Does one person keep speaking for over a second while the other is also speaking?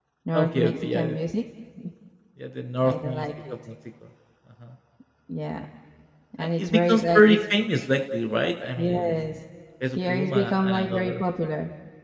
Yes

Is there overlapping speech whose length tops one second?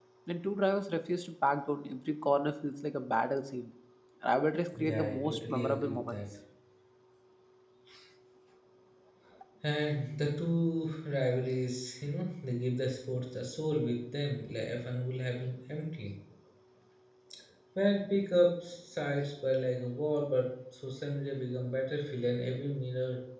Yes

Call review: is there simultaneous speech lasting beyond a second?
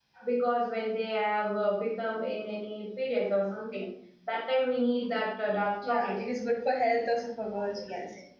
No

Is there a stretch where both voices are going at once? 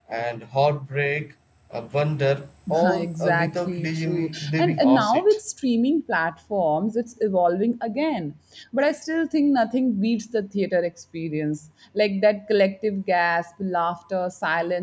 Yes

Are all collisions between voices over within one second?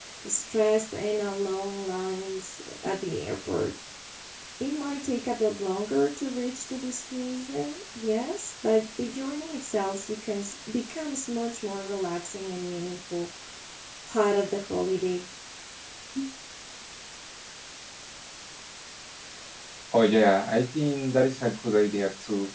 Yes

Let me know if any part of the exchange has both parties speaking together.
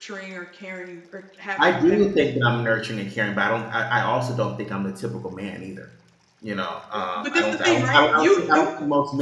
Yes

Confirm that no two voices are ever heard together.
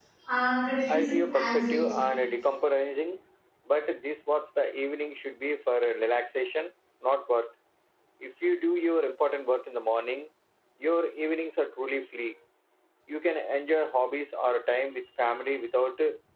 No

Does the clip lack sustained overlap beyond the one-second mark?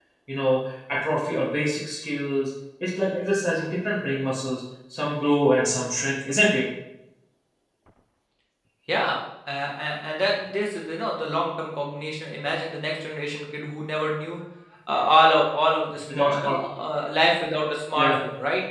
Yes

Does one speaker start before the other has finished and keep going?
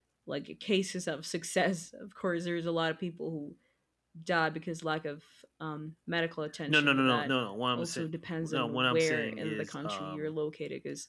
Yes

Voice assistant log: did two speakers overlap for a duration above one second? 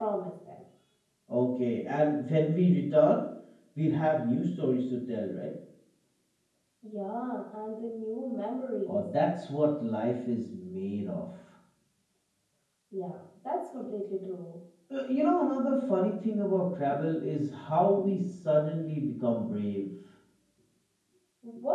No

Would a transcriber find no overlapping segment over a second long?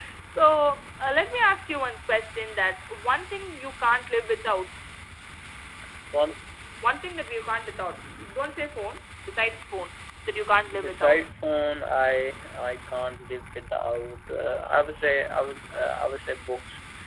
Yes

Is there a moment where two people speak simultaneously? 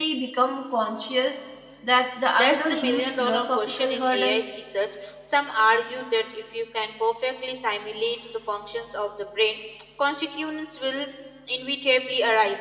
Yes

